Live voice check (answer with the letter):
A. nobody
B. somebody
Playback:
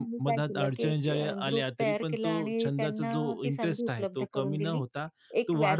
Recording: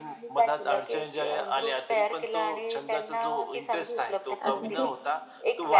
B